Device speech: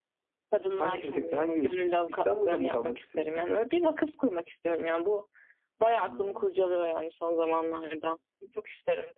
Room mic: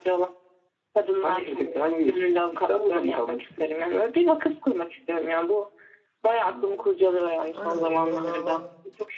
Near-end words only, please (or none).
Aynen onlara daha var.